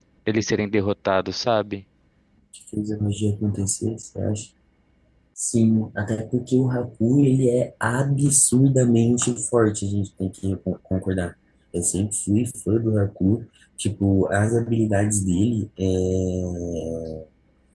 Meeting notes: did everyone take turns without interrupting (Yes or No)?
Yes